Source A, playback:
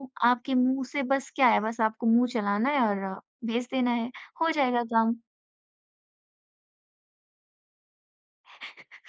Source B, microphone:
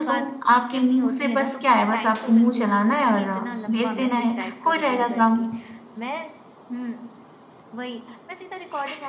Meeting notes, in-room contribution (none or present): present